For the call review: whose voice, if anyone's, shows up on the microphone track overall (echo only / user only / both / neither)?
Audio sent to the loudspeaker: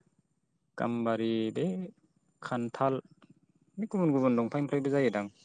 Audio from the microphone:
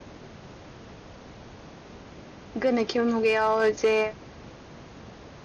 user only